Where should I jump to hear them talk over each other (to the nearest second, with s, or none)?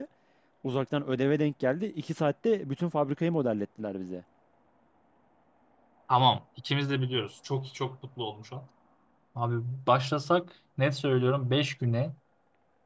none